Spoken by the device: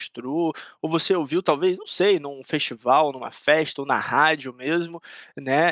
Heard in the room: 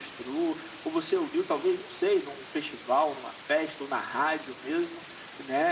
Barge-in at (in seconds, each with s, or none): none